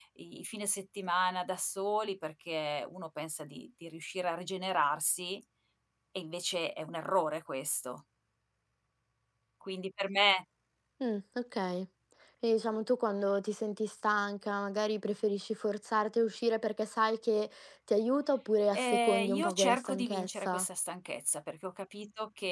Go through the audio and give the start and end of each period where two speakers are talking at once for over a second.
18.7-20.7

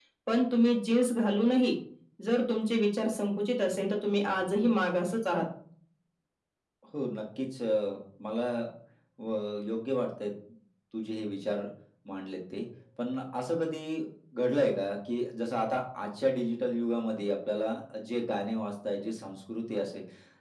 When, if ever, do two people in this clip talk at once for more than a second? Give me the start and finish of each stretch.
none

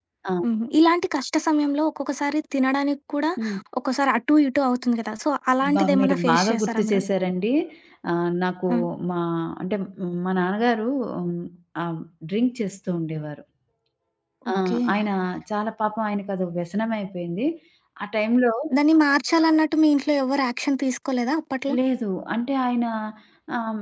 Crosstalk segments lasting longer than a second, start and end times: 5.8-7.0

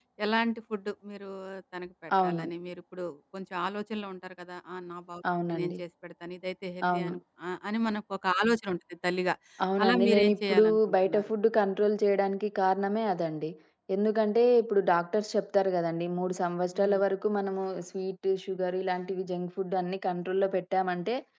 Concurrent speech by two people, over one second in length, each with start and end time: 9.8-11.3

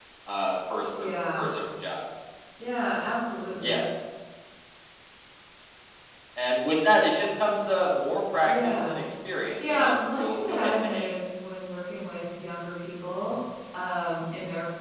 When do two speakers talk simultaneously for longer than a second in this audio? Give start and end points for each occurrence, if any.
9.6-11.2

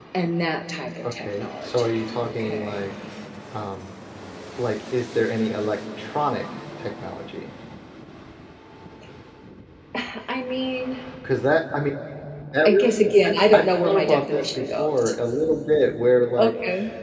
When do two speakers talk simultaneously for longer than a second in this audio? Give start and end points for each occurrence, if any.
1.1-2.9, 12.6-15.0

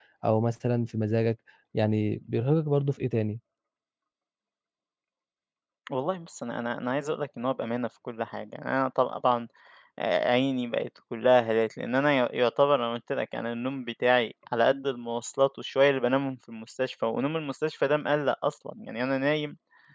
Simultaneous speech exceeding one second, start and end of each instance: none

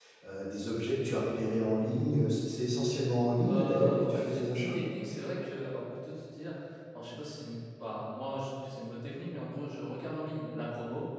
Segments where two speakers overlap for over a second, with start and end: 3.4-4.8

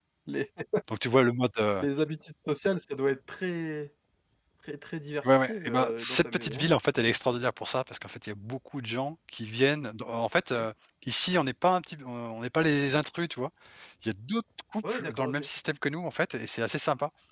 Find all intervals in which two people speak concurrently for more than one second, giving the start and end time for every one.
5.2-6.7

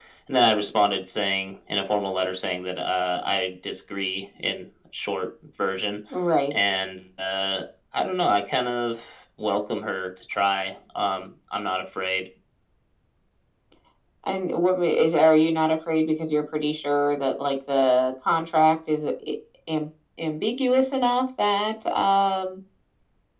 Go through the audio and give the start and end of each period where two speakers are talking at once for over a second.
none

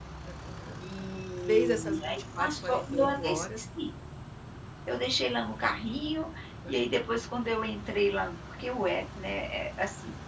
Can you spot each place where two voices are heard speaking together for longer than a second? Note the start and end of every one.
1.5-3.4

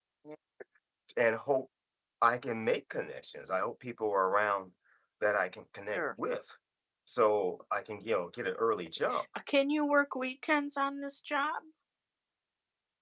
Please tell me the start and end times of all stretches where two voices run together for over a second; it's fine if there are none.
none

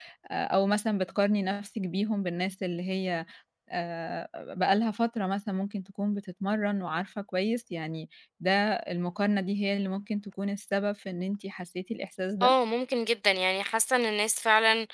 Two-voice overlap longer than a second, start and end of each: none

